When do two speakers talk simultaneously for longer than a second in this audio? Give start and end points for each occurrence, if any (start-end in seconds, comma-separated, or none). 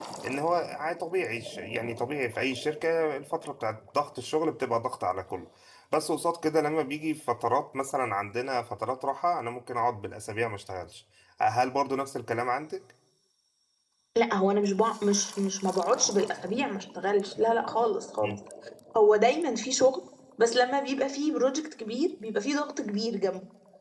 none